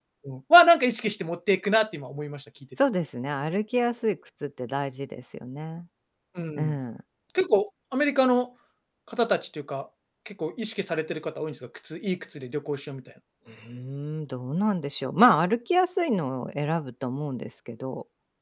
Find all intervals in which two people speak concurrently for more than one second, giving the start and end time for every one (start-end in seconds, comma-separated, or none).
none